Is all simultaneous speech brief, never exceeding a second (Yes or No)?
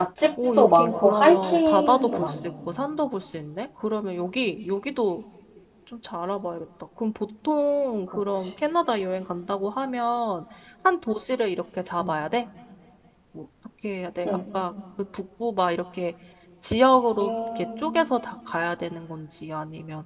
No